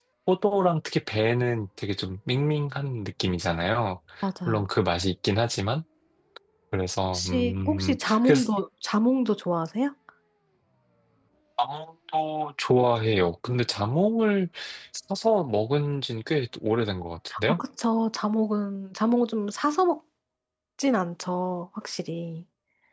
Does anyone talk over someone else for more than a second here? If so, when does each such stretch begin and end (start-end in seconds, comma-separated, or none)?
7.1-8.5